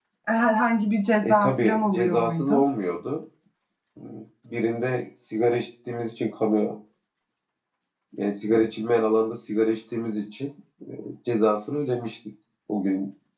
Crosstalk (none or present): present